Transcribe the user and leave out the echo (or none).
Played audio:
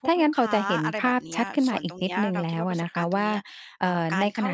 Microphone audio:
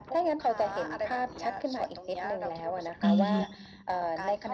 อือฮึ